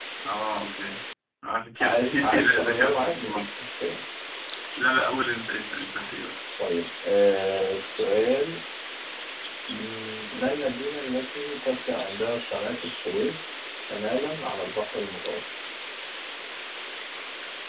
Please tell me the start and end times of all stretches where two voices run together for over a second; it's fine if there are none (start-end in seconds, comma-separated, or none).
1.8-3.4